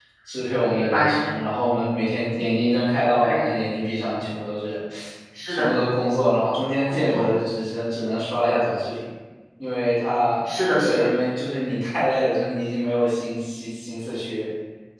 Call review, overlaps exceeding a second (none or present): none